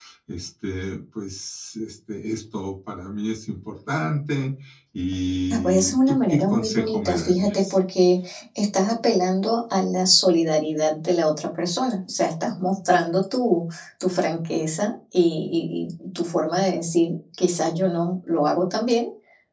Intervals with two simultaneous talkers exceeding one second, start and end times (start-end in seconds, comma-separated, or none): 5.5-7.8